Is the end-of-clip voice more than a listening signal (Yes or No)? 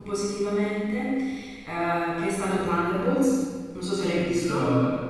Yes